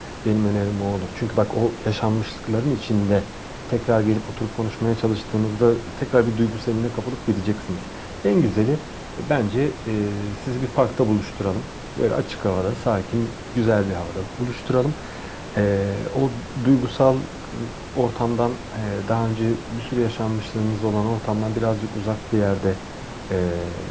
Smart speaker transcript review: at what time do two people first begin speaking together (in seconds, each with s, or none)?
none